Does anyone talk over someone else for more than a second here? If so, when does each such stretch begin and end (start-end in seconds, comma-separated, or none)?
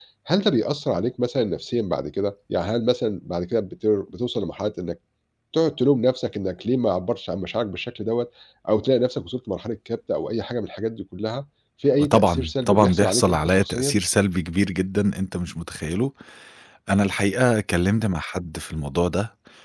12.0-14.0